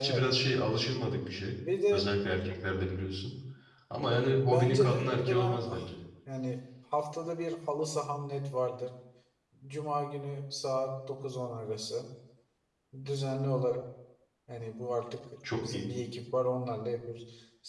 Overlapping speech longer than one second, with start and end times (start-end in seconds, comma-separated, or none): 4.4-5.8